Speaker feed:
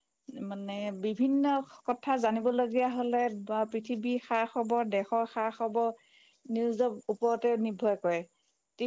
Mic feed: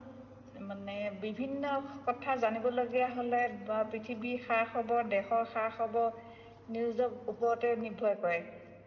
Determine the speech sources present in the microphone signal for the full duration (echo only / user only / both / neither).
echo only